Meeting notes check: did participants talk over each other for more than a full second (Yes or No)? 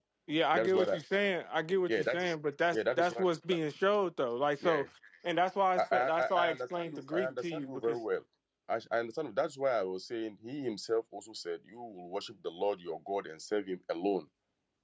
Yes